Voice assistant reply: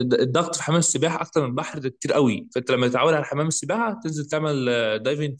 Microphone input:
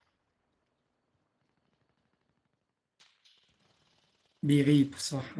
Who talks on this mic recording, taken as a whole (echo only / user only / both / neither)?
user only